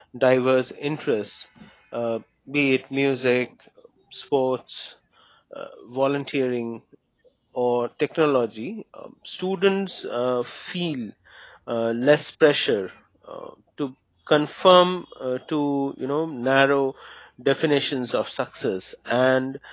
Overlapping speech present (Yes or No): No